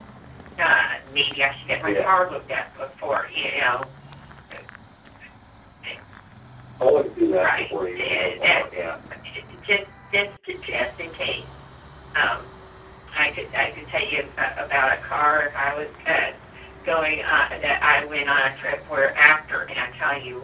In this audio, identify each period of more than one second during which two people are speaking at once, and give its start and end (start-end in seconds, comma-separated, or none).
7.4-8.6